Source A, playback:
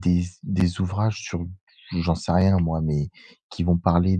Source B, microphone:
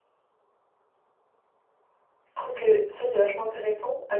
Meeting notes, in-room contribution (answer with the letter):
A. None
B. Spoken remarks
B